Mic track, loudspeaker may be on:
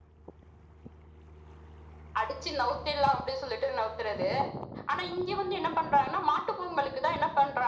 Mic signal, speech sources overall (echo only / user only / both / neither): echo only